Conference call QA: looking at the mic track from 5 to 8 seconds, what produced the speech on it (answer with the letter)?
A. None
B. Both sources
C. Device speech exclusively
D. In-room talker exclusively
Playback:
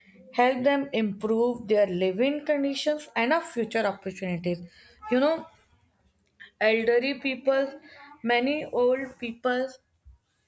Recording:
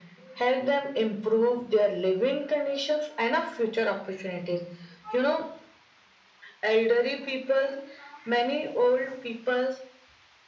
C